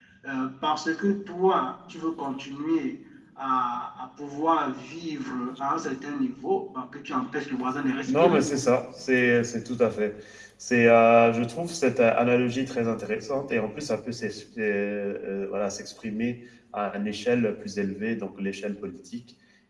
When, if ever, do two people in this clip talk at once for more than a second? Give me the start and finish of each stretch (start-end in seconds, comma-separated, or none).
none